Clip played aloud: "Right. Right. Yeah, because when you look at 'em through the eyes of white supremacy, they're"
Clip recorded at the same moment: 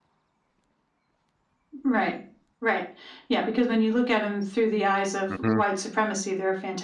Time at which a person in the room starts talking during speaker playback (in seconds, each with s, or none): 5.3 s